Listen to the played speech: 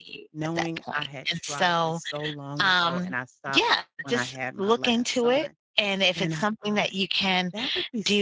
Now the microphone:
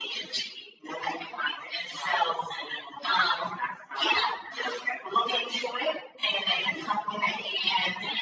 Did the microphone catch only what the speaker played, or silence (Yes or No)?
Yes